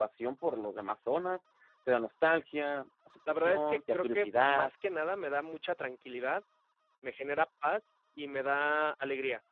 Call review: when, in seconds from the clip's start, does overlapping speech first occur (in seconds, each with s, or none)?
3.3 s